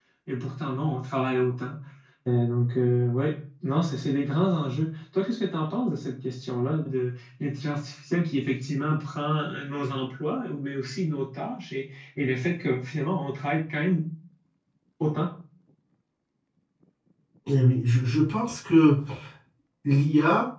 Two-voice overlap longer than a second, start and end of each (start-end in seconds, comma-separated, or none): none